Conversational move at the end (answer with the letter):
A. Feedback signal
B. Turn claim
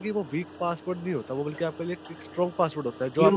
B